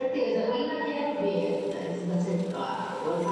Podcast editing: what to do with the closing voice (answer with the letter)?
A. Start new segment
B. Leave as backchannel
B